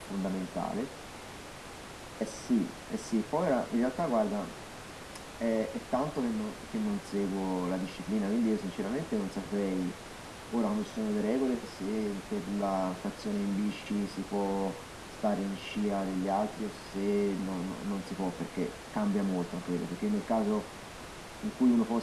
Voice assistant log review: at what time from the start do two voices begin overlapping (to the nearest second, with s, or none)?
none